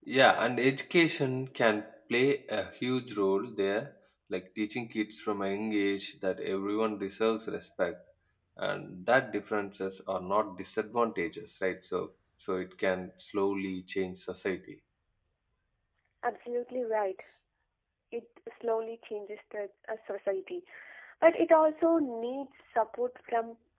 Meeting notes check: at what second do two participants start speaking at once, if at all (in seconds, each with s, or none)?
none